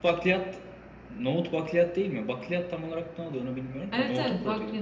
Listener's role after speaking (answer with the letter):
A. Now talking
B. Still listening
A